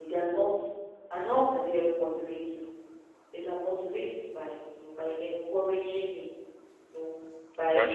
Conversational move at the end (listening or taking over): listening